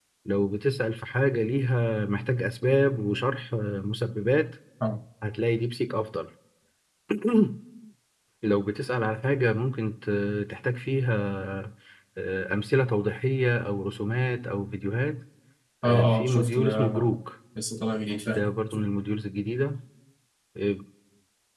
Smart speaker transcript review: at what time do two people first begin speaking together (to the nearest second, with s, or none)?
16 s